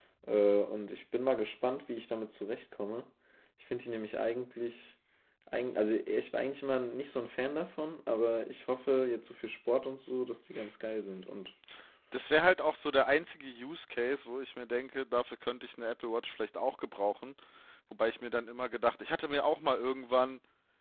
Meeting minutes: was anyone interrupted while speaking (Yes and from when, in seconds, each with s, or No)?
No